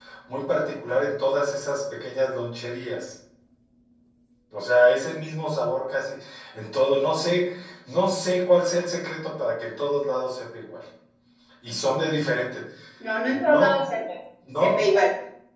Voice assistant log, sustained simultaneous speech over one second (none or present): none